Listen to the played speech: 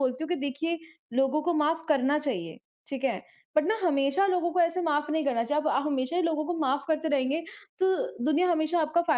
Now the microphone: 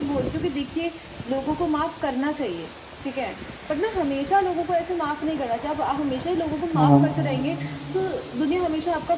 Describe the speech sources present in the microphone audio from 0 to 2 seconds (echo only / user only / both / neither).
echo only